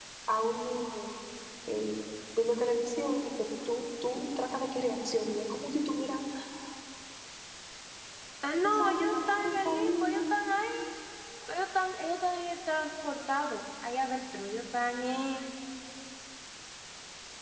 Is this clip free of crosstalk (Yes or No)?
No